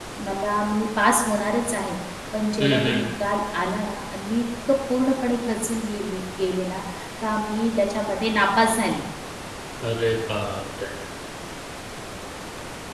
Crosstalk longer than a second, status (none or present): none